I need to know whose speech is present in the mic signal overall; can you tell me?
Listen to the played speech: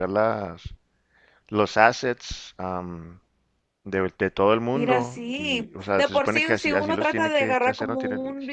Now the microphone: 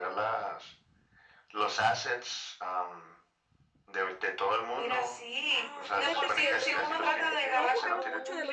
both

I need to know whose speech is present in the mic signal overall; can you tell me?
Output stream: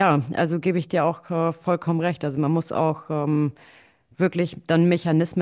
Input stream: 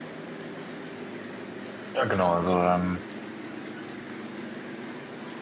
user only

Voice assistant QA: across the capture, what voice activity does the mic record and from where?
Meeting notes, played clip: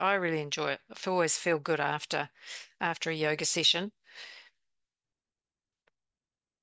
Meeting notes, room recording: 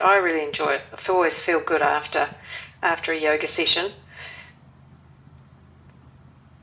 echo only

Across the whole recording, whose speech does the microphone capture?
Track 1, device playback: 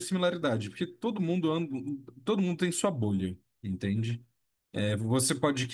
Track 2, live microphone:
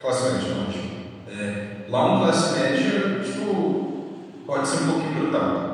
user only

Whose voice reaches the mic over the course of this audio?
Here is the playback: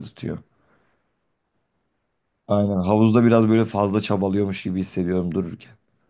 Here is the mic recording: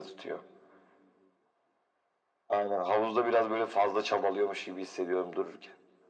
echo only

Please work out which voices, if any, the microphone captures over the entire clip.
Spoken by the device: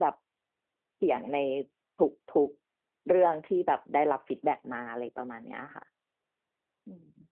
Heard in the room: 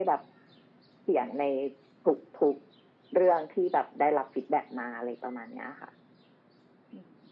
echo only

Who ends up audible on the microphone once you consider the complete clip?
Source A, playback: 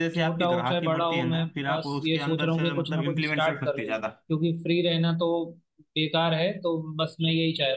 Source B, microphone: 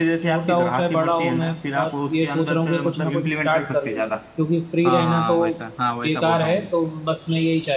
both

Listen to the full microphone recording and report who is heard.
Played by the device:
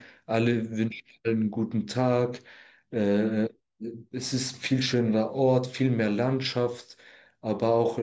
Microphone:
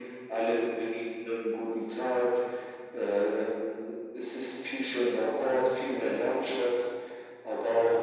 echo only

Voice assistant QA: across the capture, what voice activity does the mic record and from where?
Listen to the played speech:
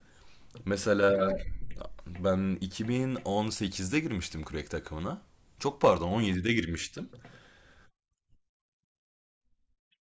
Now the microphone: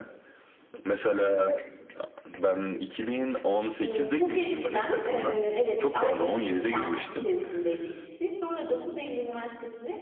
both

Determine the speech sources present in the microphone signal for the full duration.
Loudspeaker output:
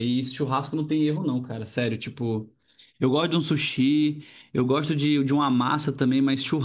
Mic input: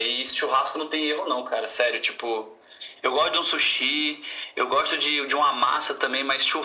echo only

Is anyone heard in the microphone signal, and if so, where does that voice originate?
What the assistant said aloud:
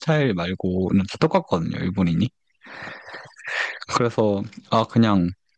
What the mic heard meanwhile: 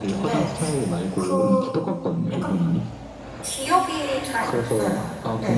both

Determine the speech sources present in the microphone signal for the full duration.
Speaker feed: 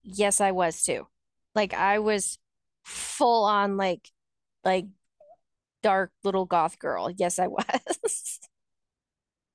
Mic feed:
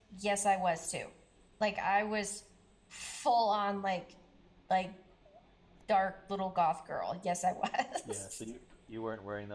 both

